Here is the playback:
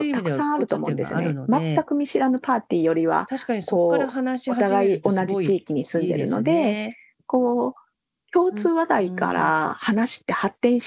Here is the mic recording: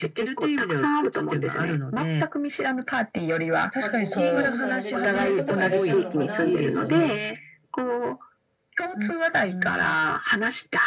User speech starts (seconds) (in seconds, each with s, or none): 3.8 s